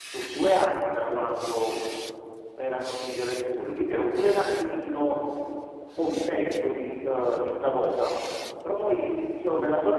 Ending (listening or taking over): listening